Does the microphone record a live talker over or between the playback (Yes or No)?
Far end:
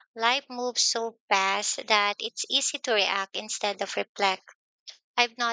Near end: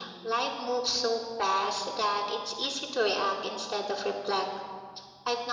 No